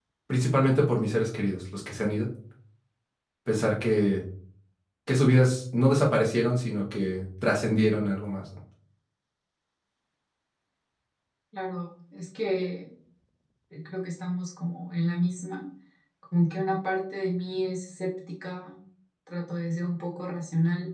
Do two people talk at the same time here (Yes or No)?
No